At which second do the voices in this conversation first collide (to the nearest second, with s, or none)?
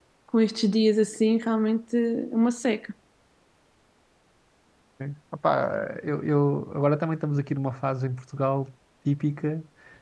none